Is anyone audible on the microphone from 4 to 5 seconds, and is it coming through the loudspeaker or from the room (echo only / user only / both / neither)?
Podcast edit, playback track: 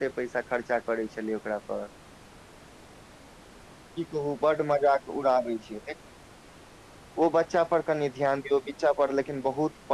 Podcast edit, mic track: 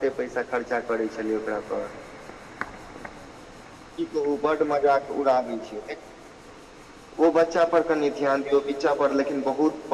echo only